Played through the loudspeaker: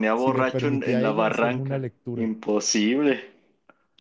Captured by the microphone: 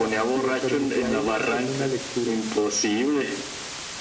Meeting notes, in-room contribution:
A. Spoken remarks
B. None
B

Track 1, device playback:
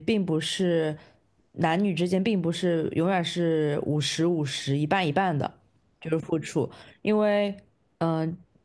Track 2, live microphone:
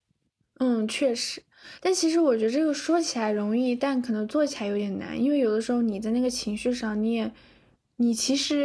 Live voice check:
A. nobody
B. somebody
B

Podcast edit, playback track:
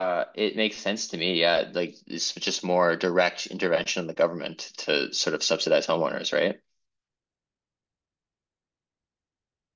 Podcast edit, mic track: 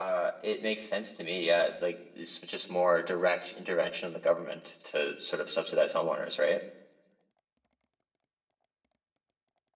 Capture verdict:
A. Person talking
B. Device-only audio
B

